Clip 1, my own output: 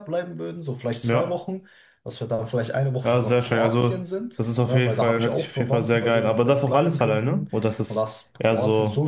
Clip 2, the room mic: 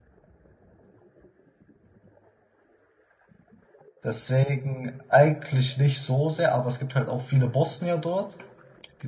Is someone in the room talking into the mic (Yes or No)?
Yes